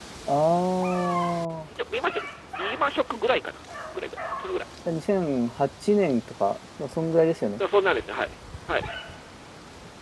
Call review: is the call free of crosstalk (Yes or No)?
Yes